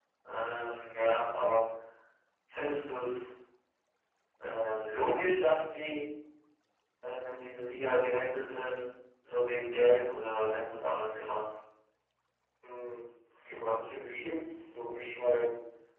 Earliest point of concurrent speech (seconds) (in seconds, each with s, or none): none